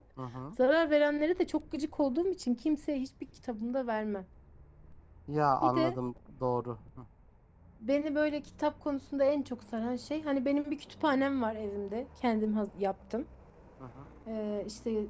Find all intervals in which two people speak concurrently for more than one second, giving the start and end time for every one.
none

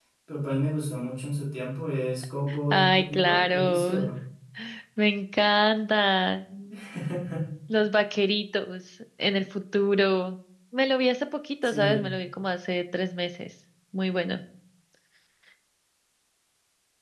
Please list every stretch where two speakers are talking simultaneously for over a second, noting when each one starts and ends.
2.7-4.0

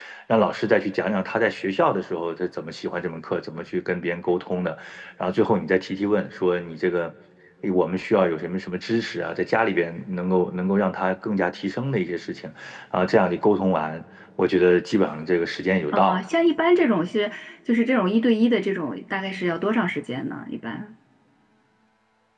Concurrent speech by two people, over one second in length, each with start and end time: none

